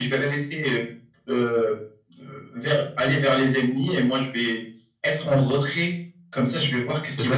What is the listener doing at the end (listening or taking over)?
taking over